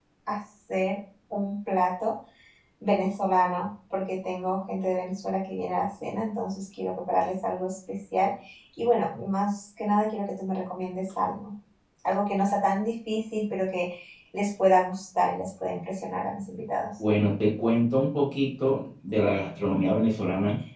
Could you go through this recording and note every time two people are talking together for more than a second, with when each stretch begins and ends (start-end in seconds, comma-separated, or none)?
none